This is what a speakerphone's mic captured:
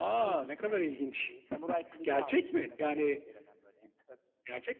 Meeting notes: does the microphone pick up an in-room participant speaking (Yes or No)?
No